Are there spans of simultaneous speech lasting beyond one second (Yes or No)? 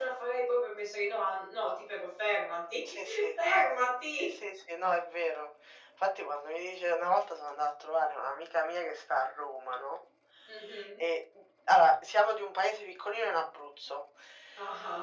No